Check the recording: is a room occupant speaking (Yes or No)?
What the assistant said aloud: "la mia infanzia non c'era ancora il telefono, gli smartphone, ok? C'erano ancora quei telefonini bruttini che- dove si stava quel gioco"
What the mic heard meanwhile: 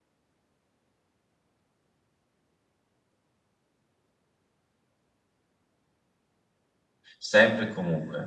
Yes